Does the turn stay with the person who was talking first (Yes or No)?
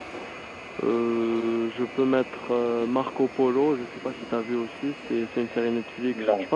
Yes